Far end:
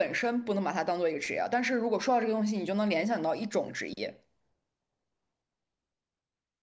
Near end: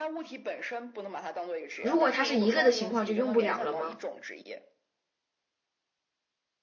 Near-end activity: present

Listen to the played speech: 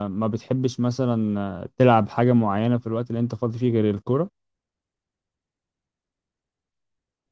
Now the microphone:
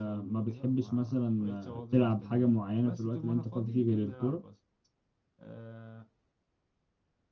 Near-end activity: present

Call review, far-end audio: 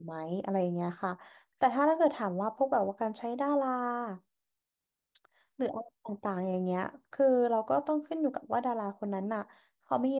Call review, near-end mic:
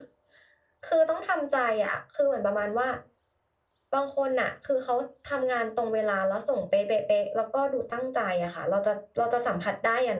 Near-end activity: present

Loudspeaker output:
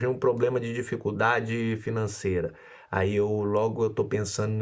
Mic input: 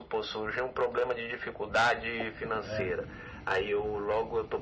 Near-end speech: present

